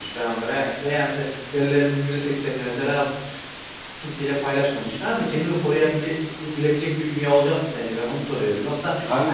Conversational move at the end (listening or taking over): listening